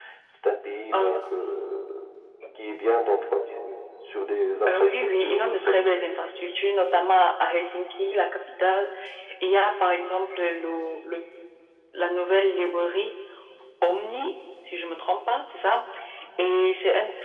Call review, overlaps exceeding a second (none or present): present